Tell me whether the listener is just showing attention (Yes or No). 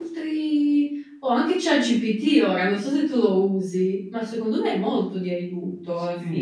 No